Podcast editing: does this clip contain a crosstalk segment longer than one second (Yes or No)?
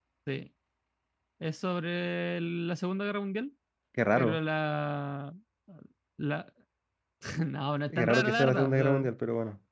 Yes